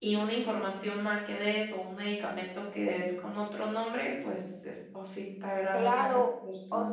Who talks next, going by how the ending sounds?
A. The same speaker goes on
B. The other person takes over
B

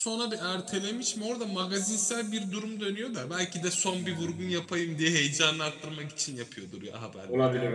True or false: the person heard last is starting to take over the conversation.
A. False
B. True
B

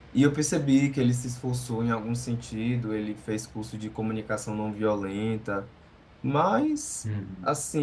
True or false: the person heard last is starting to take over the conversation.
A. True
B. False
B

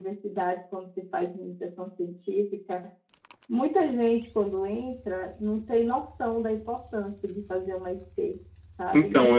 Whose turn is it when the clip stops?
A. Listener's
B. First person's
B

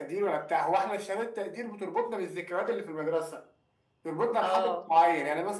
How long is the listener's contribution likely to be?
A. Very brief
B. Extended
A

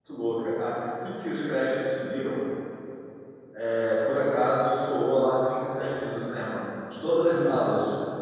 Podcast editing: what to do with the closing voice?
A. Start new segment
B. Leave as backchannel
B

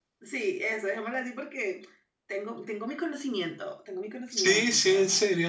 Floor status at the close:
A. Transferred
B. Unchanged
A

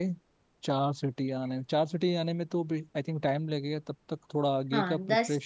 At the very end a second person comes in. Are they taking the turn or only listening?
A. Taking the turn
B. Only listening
A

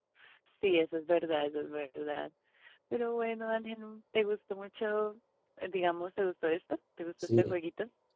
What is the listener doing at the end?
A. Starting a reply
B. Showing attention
A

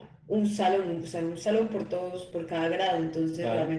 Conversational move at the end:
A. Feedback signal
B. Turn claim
A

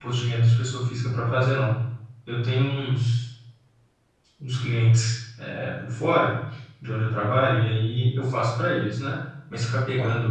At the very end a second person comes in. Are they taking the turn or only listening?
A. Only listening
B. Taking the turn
A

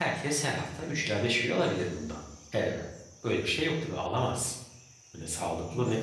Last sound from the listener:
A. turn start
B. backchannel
B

